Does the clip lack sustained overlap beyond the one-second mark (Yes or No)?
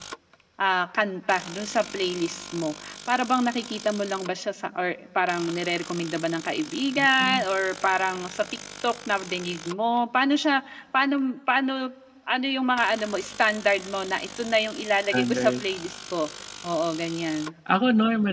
Yes